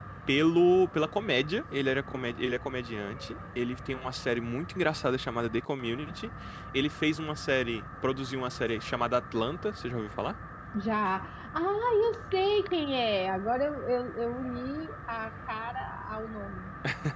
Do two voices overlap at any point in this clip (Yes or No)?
No